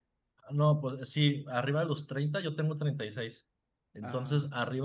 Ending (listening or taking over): listening